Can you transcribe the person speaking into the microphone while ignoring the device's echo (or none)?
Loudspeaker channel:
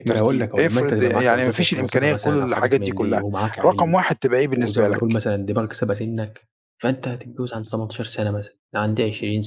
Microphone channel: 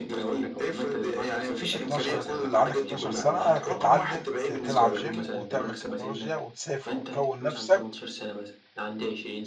12 إن يبقى عندك 12 سَنة تتعلم ت تلعب gym وتعمل تكنولوجيا وتسافر وتكوّن نَفسك